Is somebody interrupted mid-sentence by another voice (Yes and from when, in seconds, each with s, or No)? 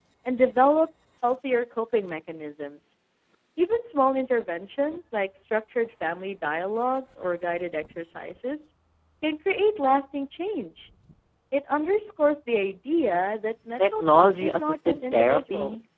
Yes, from 13.8 s